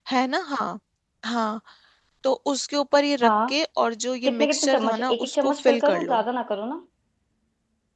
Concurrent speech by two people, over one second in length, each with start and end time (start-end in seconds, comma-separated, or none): 4.2-6.2